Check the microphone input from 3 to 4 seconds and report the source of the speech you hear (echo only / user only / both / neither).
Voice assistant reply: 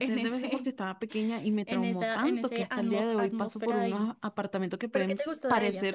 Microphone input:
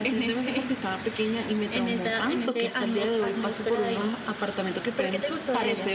echo only